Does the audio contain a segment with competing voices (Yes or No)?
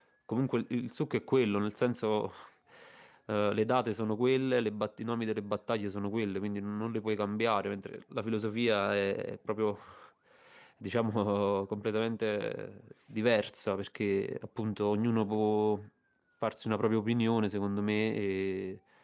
No